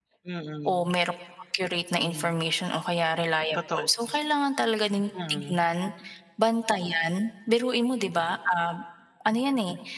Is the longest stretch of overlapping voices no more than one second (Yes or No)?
Yes